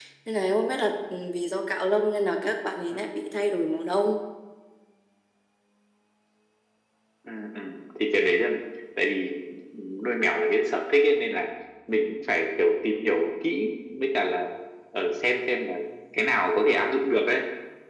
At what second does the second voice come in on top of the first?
none

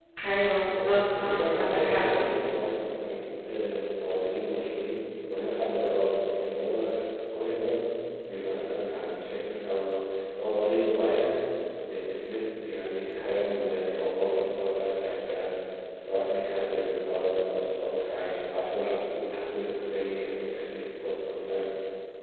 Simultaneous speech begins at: 0.6 s

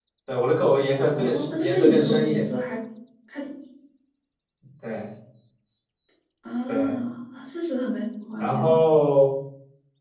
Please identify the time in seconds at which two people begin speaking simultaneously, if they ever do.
1.2 s

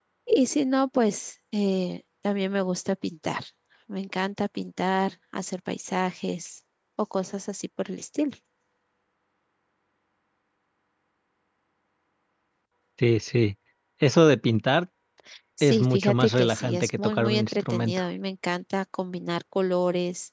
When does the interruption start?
15.6 s

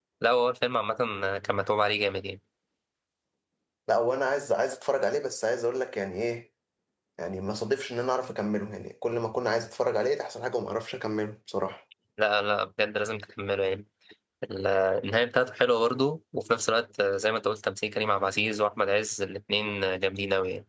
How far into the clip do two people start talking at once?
none

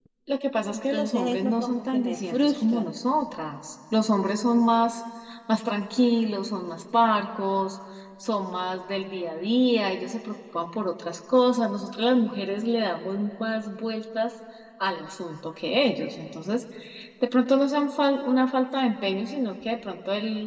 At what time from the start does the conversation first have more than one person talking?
0.7 s

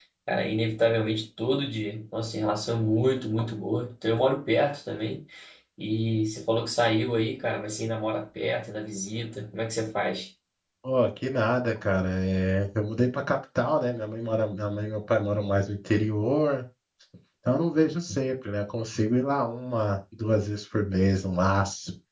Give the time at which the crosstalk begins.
none

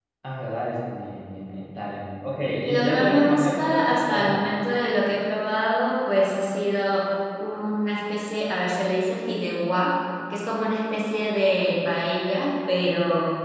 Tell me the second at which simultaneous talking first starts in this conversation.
2.5 s

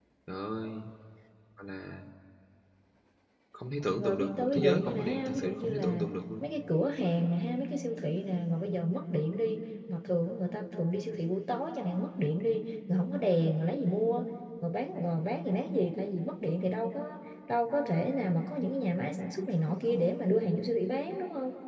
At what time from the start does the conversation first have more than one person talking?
4.0 s

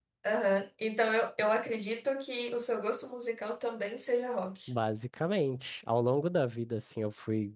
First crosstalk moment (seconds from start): none

